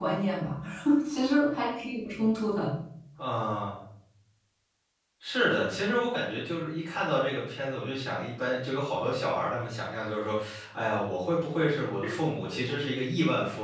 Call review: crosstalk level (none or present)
none